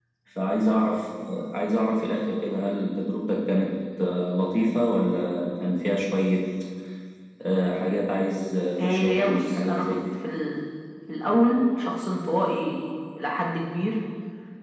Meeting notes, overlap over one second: present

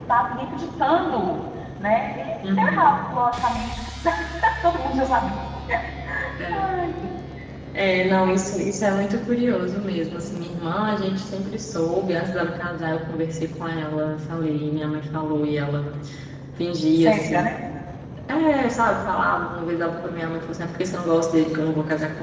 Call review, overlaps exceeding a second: none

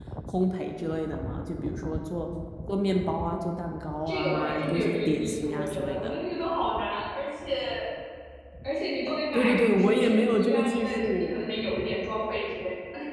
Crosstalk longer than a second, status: present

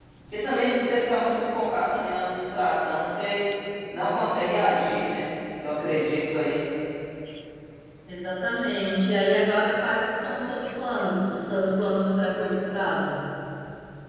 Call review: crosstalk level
none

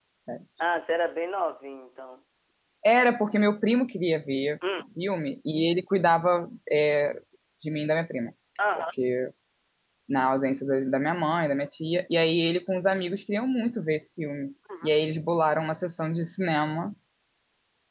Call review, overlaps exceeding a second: none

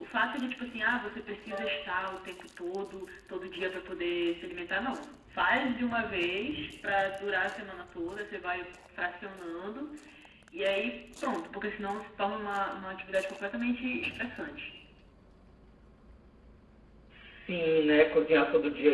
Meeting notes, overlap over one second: none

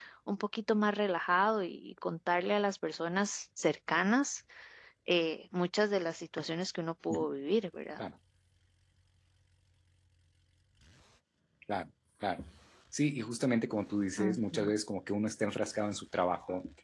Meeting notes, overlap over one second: none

